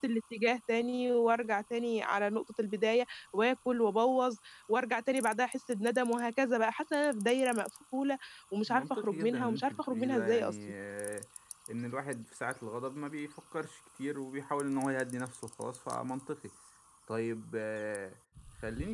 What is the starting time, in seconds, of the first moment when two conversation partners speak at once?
8.7 s

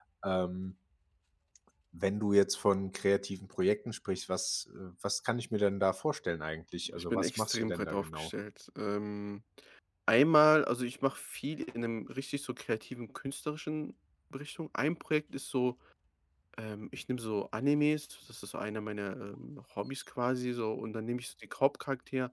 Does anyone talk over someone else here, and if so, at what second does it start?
6.9 s

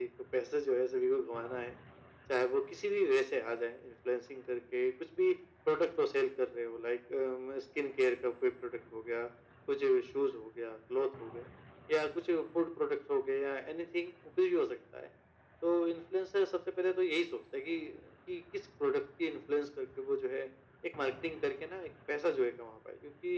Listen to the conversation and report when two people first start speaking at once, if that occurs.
none

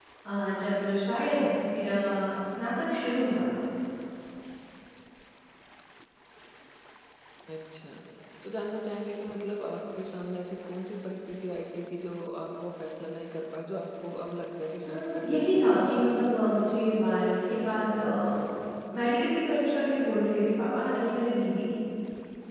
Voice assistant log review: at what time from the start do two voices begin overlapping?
14.8 s

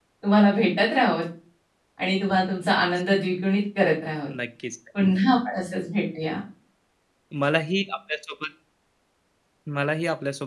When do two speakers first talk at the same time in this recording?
none

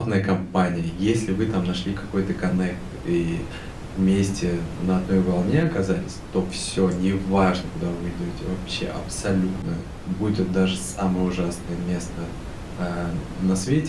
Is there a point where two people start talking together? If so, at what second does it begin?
none

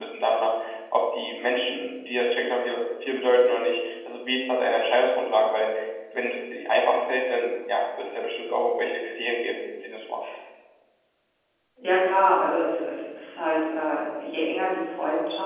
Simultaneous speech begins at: none

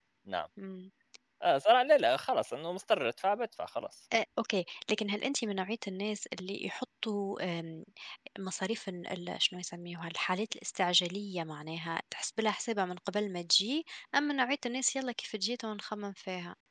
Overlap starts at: none

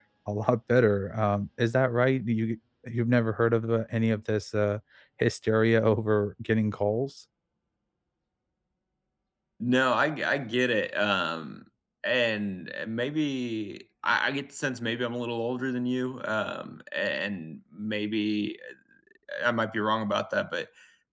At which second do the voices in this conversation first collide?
none

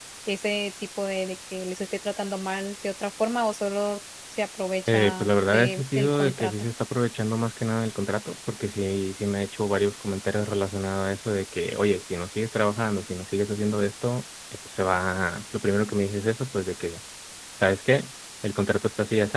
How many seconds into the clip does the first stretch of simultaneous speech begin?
4.9 s

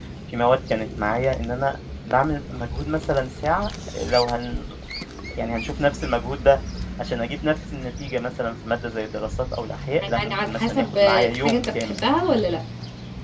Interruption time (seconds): 10.0 s

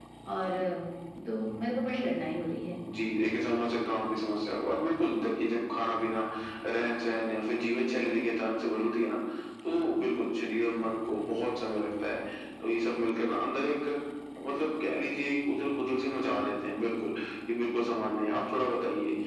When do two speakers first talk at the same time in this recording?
none

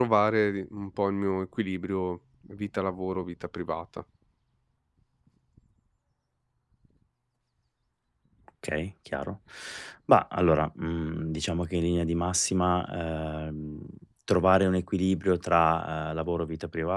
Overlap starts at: none

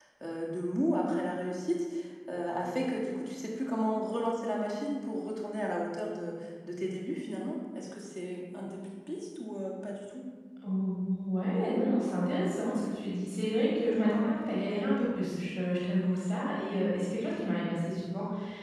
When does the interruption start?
none

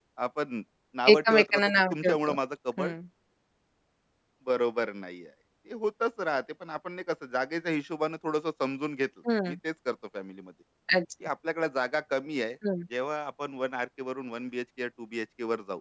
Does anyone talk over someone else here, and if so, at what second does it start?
1.1 s

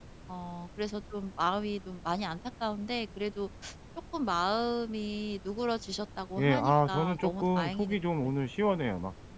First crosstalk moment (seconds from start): 6.4 s

